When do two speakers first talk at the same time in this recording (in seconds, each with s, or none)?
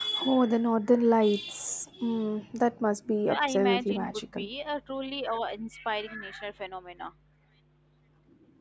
3.3 s